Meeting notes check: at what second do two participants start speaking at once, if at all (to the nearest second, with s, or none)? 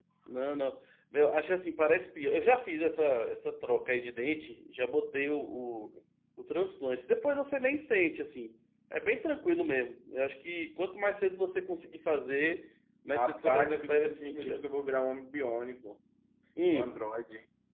13 s